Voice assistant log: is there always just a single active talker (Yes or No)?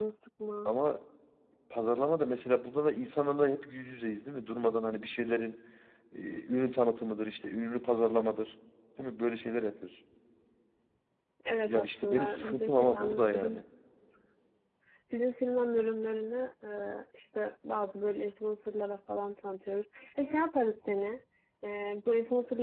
No